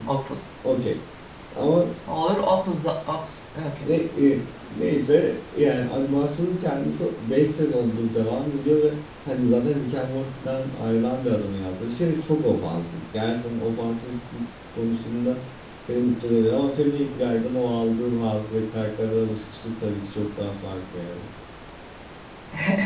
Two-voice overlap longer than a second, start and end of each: none

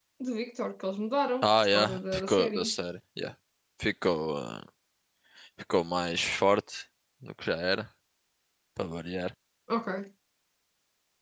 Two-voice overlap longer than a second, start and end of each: 1.4-2.7

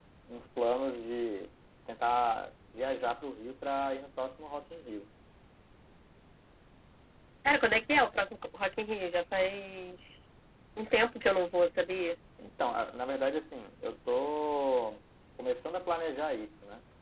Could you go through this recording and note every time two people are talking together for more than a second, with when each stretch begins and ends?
none

